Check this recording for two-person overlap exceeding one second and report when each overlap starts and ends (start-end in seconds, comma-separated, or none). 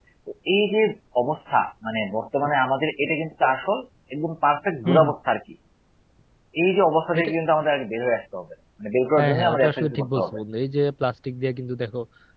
9.2-10.4